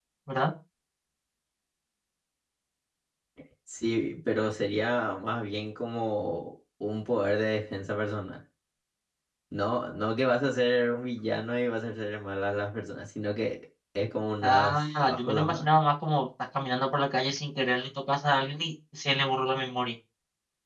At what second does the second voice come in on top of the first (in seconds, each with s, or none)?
14.4 s